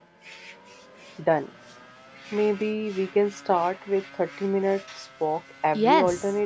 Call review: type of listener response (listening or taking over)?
taking over